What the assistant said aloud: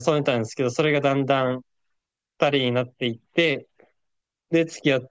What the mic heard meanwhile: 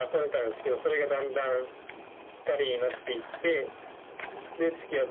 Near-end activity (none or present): none